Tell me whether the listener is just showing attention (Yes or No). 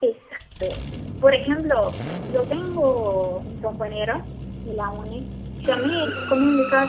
Yes